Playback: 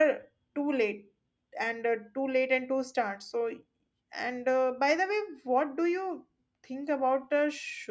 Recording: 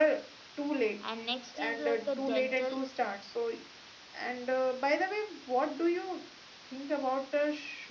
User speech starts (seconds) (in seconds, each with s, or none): 1.0 s